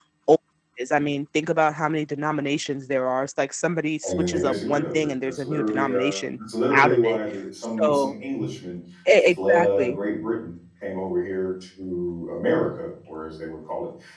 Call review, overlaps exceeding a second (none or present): present